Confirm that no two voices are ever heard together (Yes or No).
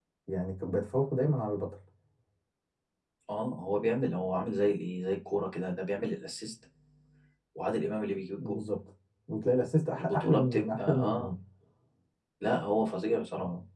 No